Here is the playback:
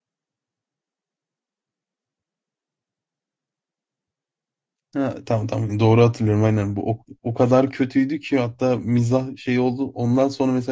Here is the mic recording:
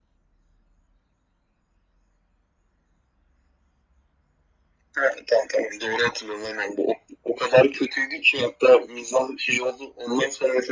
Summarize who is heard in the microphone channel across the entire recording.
echo only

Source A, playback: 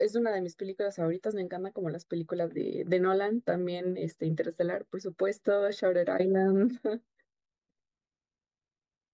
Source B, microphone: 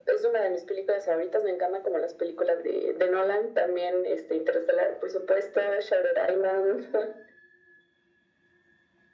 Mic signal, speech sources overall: echo only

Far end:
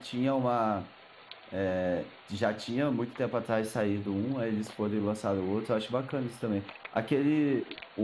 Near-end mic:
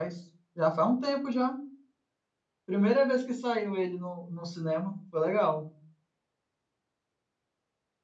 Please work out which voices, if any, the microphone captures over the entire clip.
user only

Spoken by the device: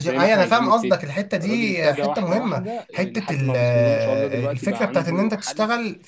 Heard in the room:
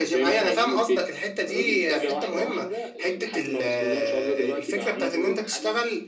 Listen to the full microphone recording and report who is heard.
echo only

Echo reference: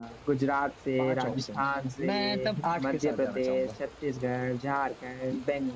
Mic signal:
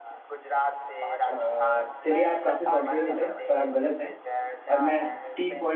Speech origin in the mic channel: both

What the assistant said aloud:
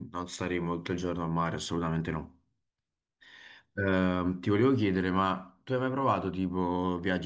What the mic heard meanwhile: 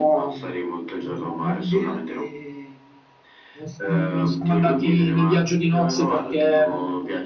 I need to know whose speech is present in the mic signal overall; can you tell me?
both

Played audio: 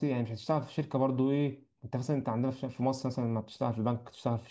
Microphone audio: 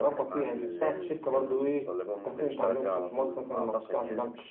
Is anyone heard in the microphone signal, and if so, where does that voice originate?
both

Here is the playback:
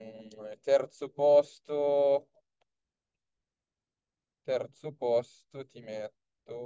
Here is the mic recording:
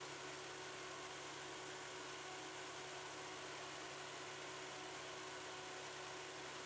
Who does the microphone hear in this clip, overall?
neither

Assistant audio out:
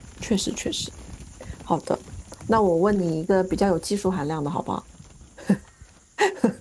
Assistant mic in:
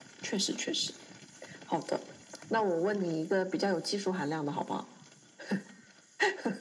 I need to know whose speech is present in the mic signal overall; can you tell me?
echo only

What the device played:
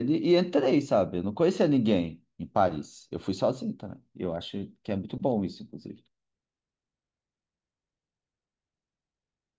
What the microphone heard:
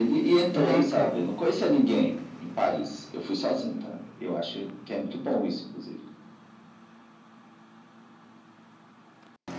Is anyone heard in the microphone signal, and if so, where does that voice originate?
both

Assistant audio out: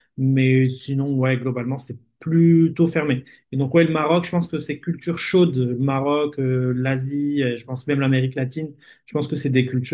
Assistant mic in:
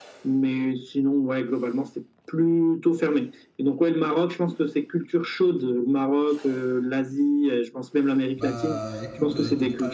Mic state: both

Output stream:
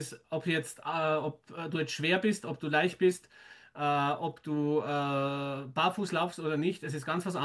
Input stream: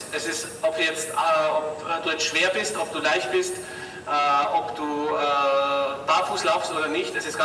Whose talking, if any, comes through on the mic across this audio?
echo only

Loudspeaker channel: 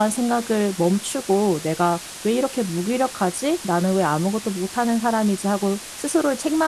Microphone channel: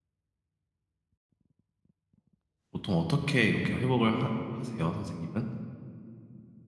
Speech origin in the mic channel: user only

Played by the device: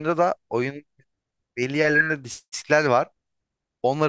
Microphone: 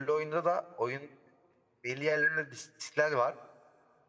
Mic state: echo only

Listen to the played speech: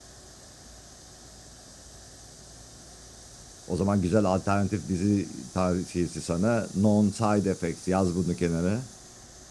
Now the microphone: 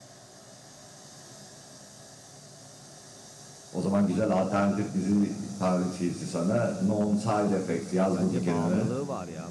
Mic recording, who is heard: both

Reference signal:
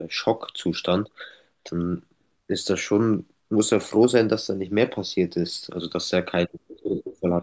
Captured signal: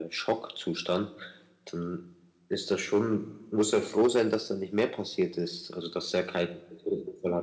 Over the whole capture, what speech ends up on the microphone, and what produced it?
echo only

